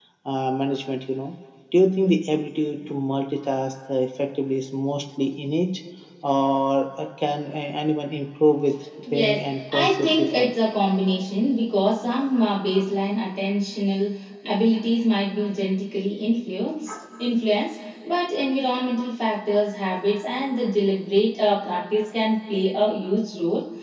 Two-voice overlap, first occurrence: 9 s

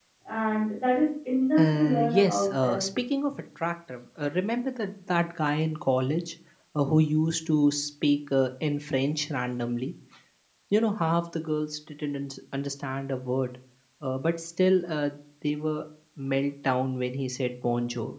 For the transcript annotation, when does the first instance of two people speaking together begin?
2 s

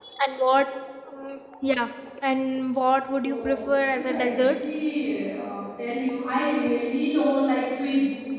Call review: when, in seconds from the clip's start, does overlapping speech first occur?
3 s

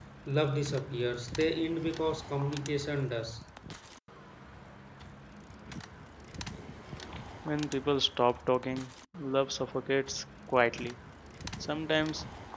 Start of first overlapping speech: none

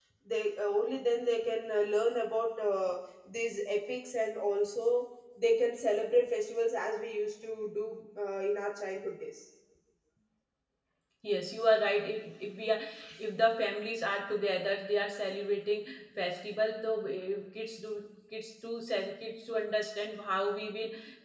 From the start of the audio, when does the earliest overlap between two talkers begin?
none

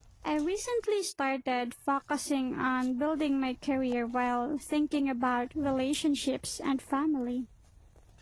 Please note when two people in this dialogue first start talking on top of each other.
none

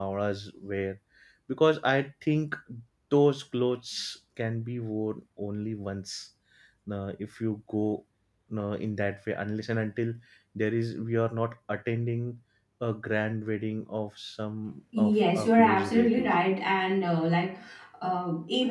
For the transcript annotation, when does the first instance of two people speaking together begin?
15 s

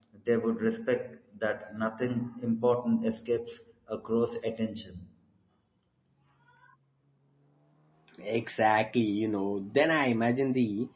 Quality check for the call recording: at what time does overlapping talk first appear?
none

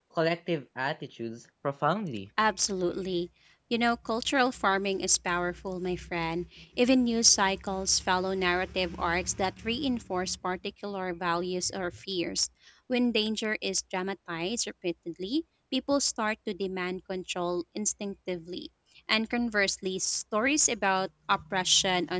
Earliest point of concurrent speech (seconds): none

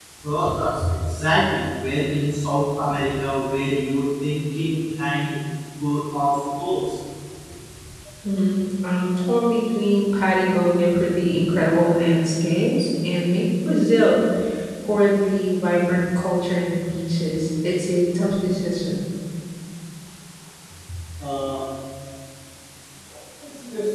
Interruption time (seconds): none

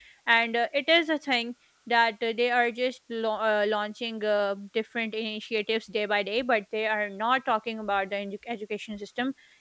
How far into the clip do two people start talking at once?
none

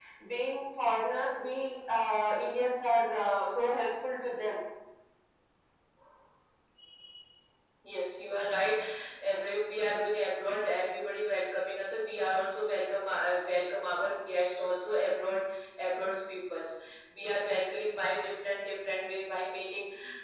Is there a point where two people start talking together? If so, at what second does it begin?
none

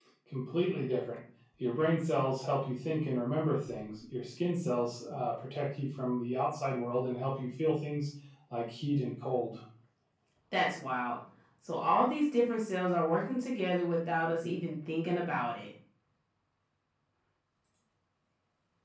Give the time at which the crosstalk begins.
none

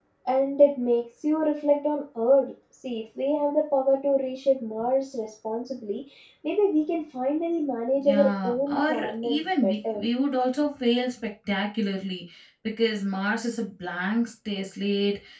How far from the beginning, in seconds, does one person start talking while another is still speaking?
8 s

